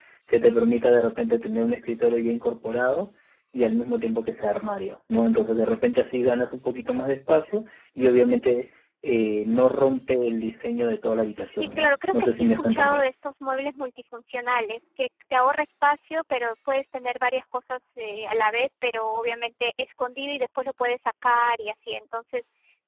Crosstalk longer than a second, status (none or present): present